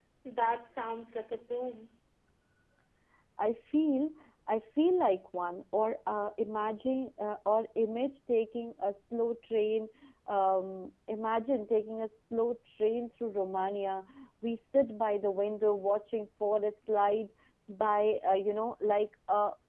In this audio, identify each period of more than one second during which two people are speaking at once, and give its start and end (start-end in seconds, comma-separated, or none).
none